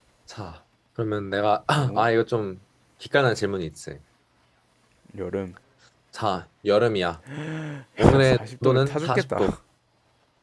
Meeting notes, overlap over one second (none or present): present